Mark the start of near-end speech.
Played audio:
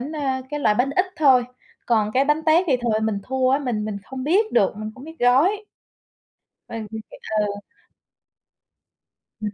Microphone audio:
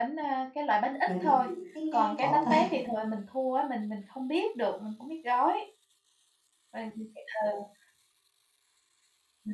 1.1 s

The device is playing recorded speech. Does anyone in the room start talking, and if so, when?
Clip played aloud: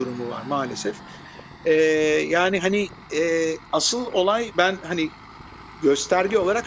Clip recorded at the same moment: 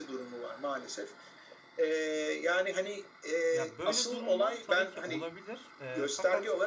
3.5 s

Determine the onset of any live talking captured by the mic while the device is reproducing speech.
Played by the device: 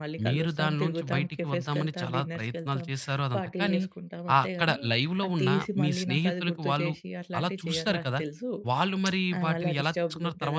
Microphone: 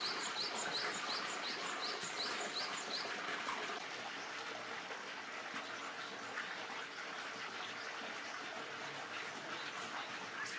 none

